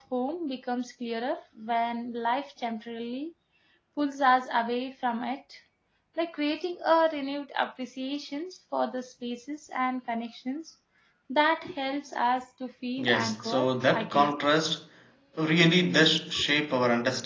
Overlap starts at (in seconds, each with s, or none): 13.0 s